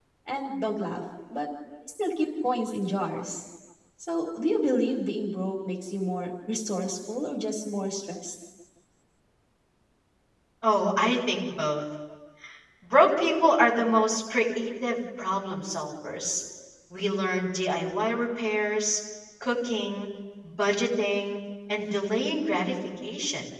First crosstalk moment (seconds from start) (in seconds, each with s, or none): none